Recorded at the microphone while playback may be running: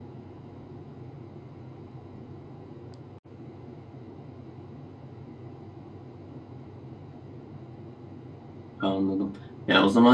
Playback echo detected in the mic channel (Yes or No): No